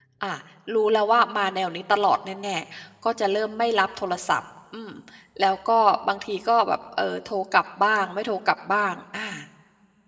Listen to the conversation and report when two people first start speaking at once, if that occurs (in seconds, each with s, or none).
none